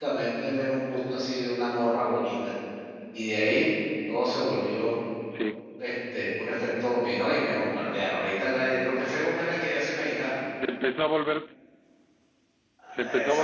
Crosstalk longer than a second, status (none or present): none